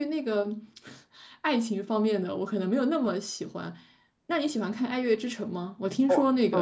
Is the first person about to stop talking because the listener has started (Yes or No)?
No